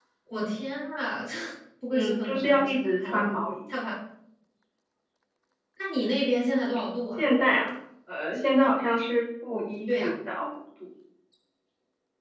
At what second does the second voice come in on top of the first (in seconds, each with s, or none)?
1.9 s